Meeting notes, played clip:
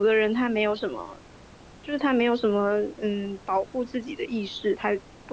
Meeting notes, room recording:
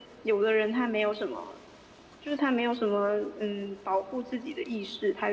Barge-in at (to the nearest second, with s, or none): none